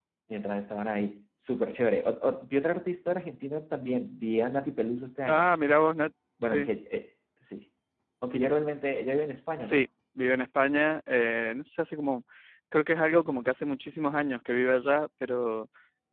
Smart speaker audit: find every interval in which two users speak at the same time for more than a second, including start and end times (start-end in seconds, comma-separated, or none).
none